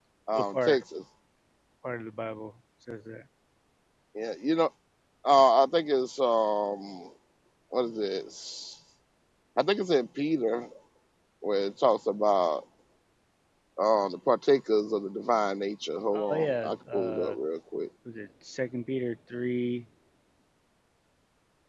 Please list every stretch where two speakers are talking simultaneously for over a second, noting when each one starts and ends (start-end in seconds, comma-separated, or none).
16.2-17.4